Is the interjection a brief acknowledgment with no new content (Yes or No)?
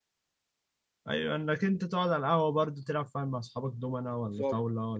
No